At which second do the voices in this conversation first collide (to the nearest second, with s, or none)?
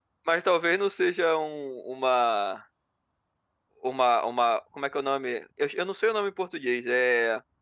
none